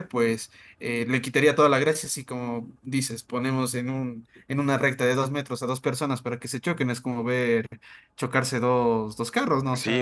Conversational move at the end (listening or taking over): taking over